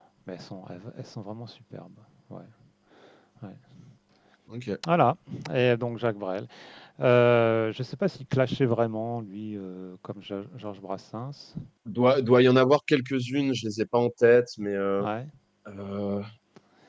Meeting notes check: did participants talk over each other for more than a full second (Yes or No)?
No